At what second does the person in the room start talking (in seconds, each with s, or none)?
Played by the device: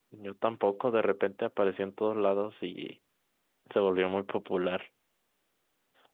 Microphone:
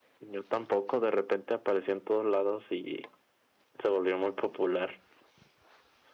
none